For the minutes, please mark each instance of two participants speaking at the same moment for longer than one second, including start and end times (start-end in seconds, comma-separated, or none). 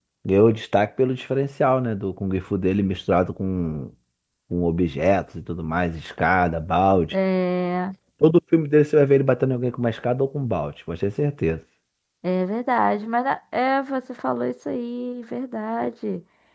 none